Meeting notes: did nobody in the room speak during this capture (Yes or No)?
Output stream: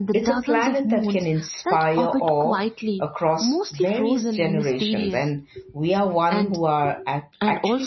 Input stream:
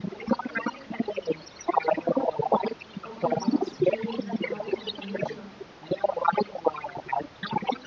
No